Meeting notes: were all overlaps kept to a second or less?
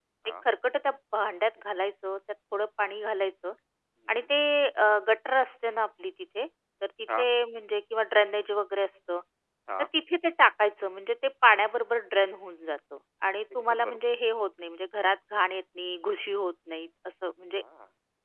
Yes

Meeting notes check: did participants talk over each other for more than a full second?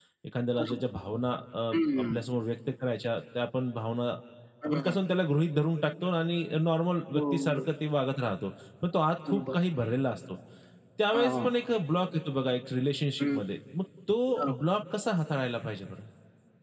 No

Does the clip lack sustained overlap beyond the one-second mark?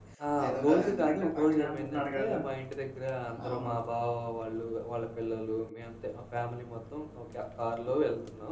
No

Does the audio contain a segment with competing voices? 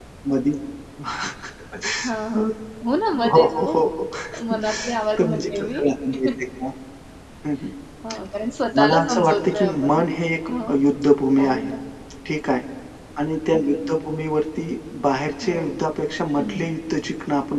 Yes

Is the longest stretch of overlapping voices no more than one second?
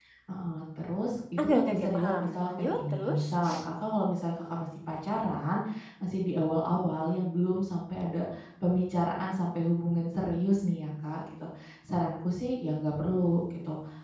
No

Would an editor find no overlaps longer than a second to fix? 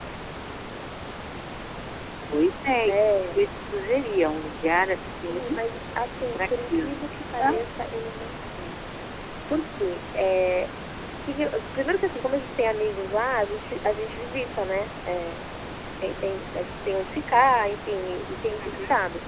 No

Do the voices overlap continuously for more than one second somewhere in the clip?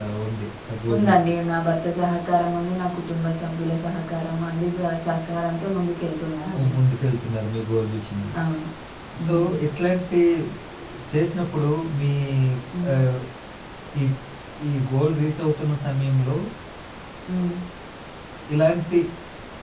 No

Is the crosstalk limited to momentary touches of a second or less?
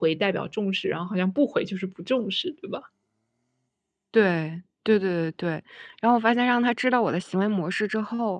Yes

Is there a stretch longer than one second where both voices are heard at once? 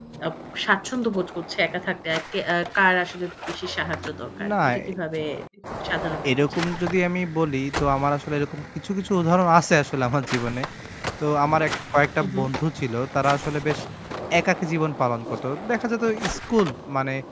No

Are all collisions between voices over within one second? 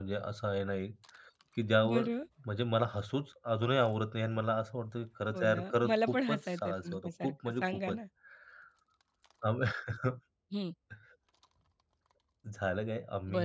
No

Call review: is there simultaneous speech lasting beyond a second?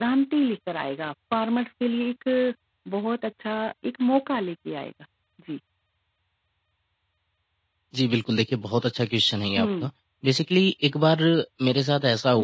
No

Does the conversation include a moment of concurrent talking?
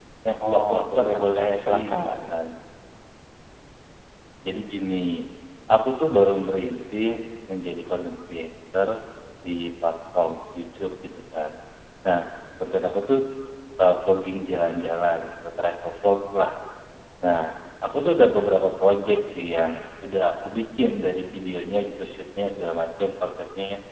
Yes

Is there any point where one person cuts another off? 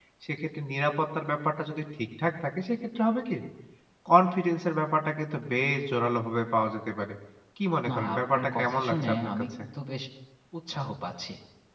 Yes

